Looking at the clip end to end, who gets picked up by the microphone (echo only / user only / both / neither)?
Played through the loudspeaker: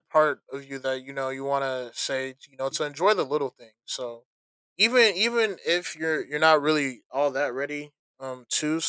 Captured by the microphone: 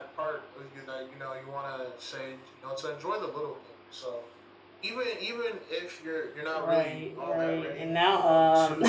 both